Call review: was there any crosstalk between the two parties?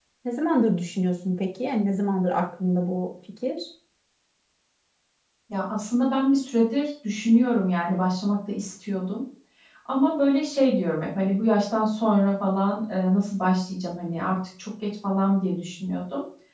No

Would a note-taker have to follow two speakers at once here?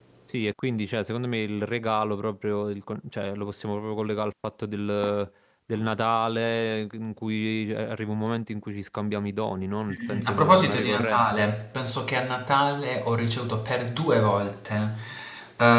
Yes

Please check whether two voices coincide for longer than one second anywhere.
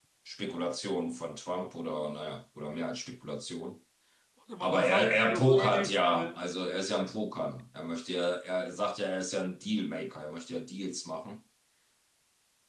Yes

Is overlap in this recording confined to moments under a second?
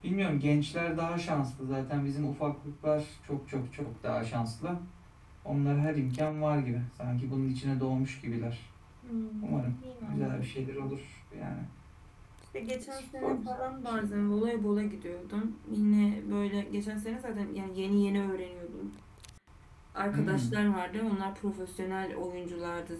No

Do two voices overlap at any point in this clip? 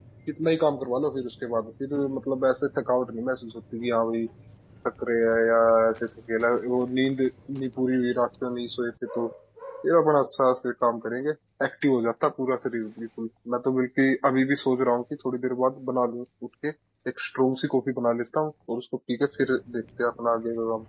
No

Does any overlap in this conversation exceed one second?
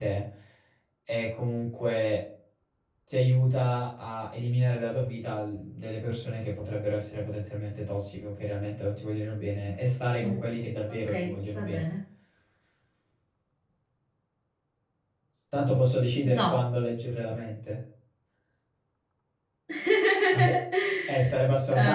No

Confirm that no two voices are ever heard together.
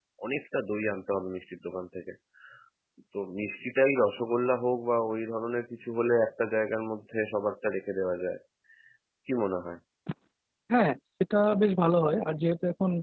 Yes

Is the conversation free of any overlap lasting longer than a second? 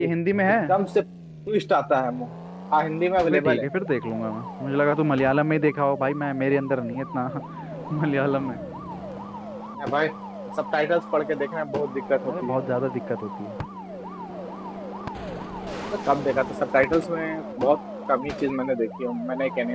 Yes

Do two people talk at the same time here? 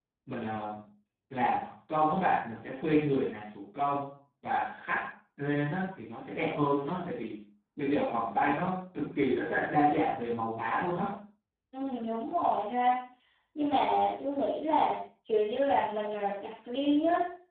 No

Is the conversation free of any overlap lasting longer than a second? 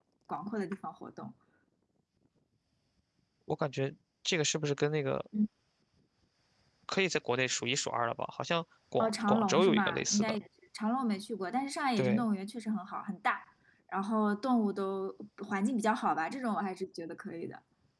No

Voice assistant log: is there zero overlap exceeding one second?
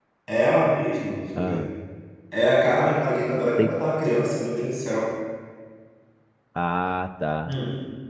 Yes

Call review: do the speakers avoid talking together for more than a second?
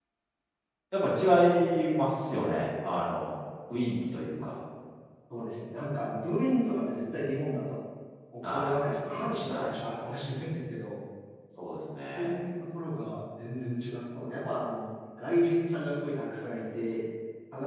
Yes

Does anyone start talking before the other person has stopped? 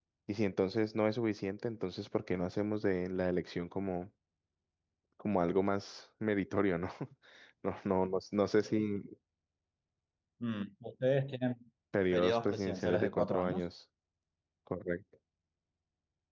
Yes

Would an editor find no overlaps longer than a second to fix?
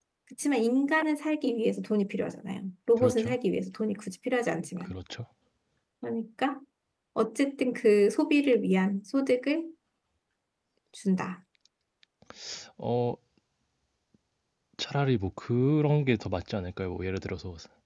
Yes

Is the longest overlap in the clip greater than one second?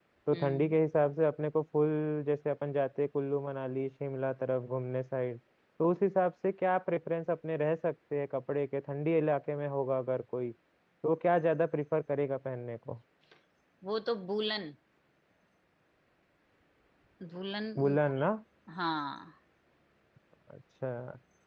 No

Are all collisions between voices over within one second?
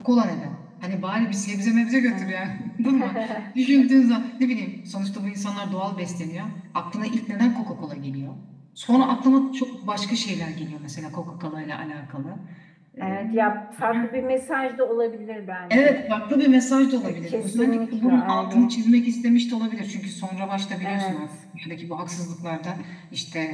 No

